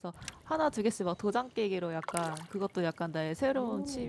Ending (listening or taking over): listening